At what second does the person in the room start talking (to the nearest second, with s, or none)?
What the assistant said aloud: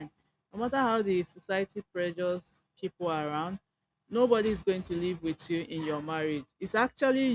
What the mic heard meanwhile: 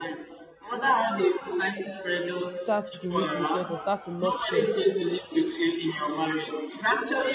3 s